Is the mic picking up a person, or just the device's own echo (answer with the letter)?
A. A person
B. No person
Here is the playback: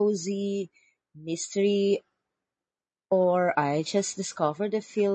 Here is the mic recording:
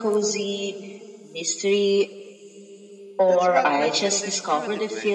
A